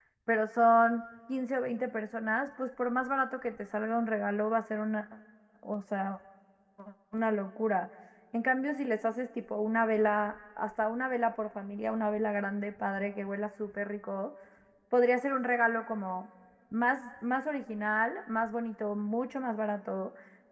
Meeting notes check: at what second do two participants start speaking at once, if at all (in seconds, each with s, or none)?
none